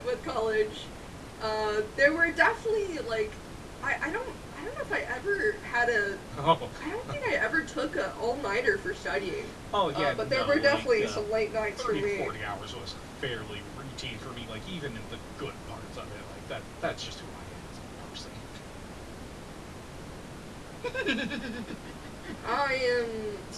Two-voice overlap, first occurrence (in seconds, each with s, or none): 9.9 s